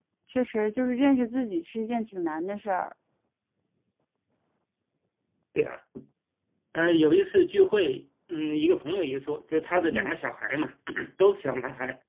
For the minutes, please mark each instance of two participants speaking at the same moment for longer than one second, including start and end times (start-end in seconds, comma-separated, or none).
none